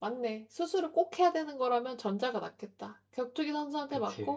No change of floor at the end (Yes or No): Yes